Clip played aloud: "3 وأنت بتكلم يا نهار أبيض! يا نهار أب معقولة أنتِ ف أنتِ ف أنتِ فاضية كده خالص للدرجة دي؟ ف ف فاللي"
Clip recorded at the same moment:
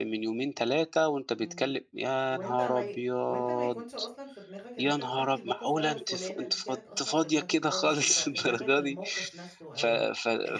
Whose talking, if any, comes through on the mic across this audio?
both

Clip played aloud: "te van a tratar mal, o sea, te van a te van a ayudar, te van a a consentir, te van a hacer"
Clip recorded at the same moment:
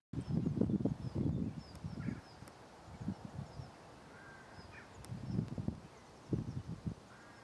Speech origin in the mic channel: neither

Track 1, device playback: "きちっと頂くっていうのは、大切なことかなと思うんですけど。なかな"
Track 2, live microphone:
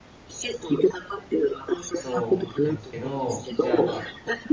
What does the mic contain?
both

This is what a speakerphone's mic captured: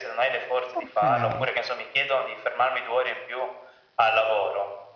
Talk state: both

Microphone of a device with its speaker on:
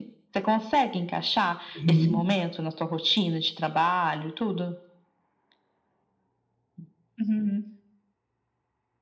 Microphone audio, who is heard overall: both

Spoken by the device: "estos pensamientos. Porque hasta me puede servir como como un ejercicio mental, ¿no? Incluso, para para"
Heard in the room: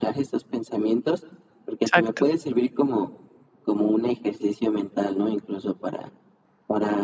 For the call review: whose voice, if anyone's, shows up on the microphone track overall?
both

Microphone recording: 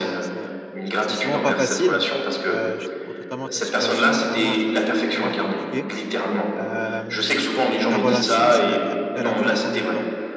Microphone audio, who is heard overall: both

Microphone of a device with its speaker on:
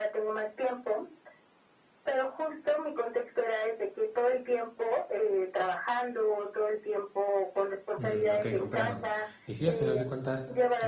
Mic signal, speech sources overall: both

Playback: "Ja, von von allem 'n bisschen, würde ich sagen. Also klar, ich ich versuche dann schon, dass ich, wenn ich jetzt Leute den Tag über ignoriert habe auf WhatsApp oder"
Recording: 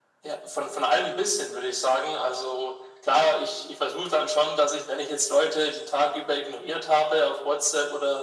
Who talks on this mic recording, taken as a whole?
echo only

